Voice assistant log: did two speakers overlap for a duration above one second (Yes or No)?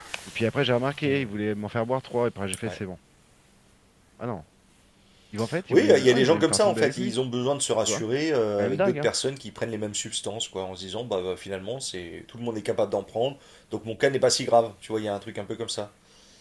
Yes